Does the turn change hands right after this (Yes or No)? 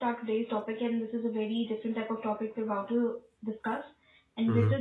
No